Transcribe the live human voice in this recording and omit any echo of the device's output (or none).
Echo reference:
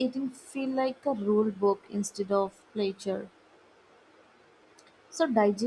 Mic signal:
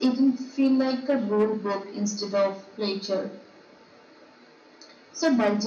none